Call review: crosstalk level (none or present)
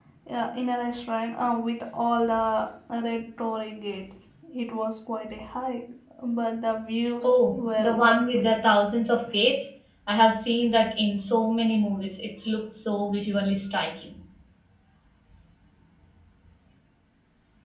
present